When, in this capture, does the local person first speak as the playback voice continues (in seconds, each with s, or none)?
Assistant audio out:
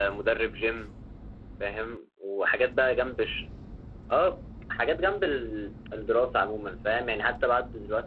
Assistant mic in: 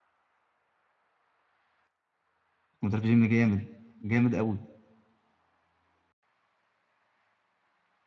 2.8 s